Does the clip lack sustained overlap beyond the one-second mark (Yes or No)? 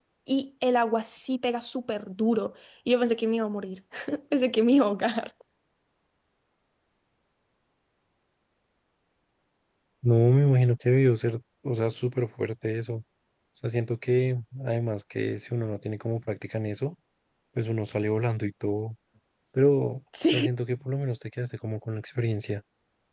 Yes